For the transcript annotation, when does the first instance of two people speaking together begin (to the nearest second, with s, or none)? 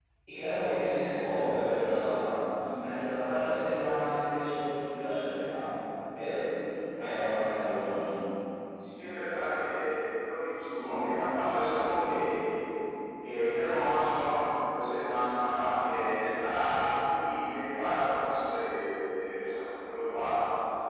none